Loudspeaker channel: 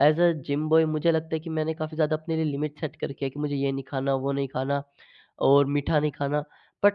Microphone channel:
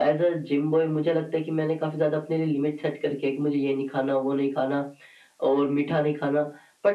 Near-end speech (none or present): none